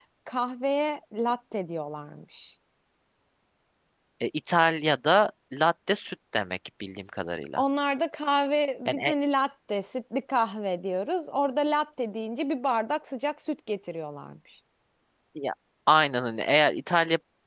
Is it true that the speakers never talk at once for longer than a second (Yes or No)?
Yes